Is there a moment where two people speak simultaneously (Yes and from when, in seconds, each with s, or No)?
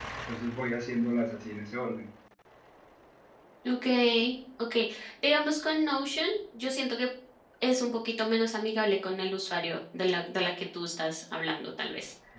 No